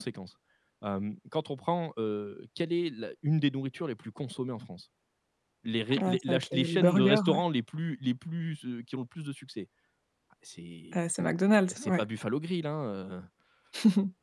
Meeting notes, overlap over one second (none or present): present